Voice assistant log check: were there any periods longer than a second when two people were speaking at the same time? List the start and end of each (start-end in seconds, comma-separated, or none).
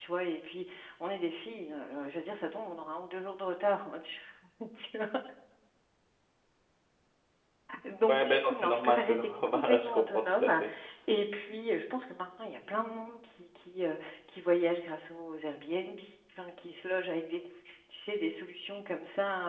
8.1-10.6